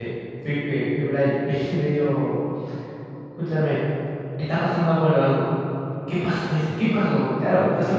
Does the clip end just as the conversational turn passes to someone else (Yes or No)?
Yes